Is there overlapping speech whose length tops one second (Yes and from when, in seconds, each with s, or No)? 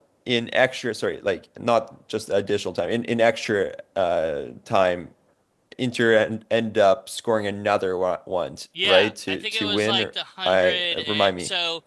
Yes, from 8.8 s